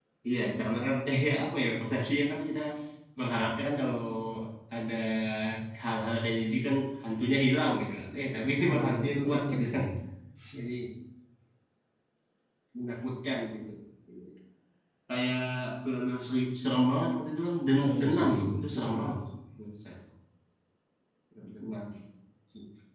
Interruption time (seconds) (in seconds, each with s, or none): 8.5 s